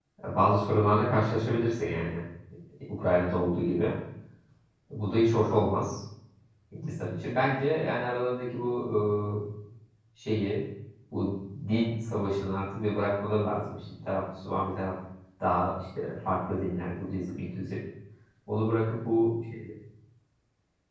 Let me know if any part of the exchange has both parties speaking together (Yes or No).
No